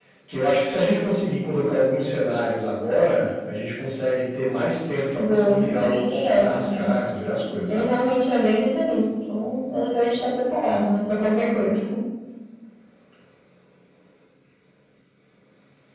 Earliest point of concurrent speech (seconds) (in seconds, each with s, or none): 5.2 s